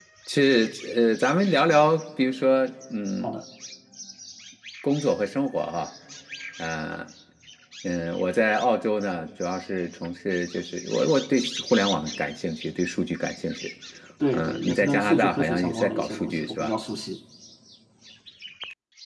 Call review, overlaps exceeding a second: present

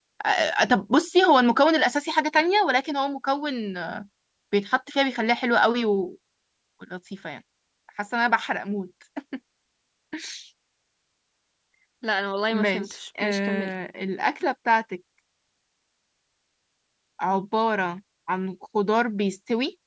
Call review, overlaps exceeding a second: present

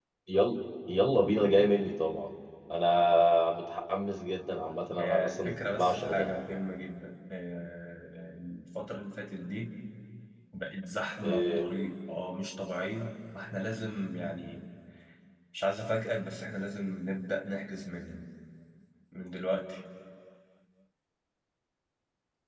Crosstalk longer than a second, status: present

